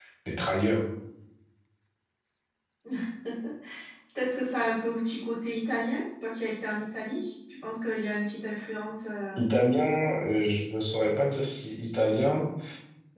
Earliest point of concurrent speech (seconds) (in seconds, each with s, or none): none